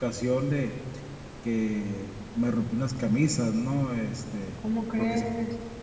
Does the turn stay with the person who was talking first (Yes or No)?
Yes